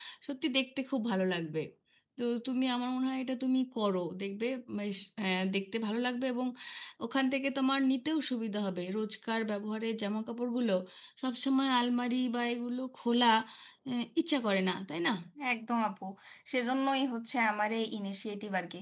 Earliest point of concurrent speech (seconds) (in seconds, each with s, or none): none